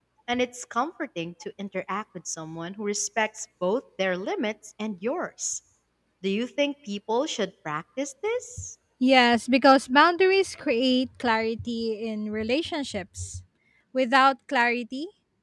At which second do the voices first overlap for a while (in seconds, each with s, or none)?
none